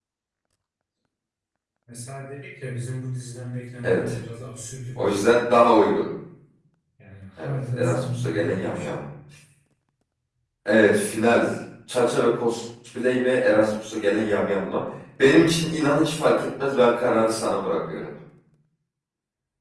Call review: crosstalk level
present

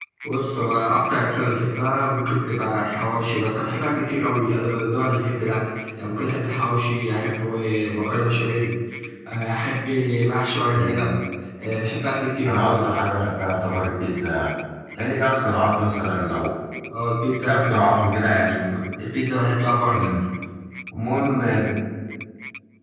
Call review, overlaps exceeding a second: none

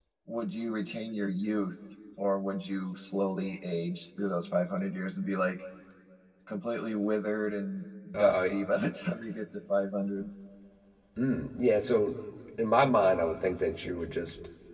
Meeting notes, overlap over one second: none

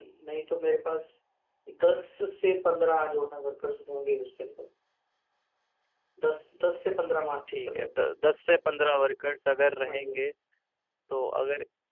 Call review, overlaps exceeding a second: none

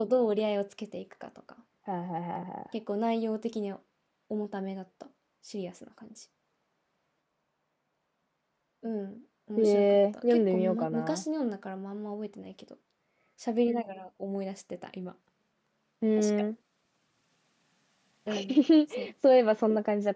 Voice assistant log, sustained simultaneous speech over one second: present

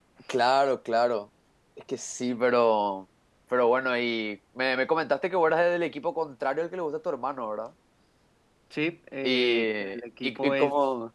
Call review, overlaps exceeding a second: present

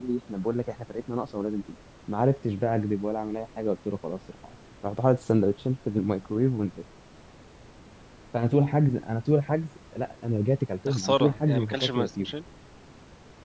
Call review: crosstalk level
present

